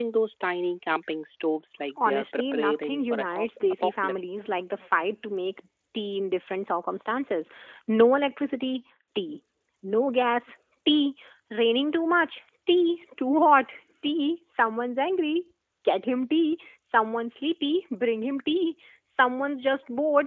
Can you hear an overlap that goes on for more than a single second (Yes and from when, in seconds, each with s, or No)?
Yes, from 2.0 s